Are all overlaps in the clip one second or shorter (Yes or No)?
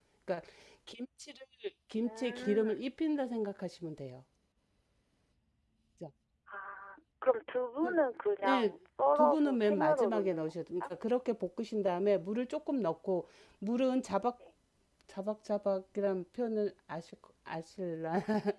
No